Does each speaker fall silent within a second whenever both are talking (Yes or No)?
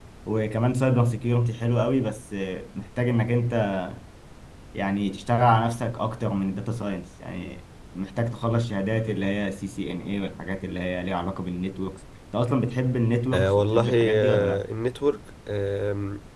No